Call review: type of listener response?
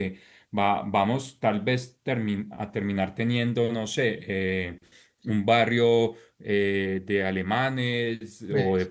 listening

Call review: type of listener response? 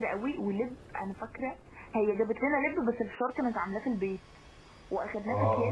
listening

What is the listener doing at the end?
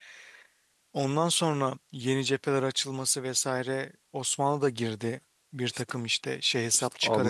taking over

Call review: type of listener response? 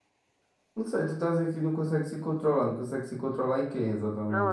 taking over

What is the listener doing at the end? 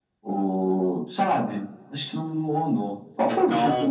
listening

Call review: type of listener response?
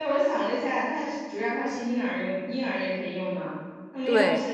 listening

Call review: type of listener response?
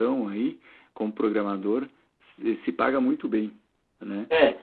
taking over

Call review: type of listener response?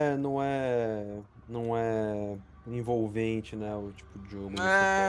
taking over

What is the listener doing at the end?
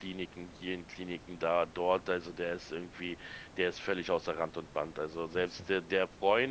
listening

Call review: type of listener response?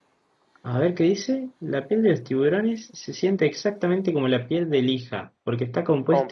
listening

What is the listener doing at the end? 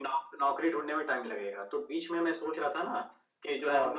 listening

